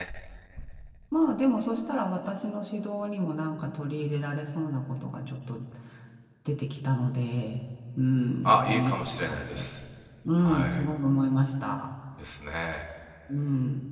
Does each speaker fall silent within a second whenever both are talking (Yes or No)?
No